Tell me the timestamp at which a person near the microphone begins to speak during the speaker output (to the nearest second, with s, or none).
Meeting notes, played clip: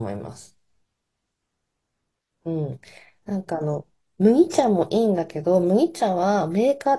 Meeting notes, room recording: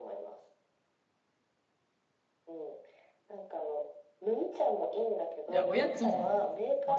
5 s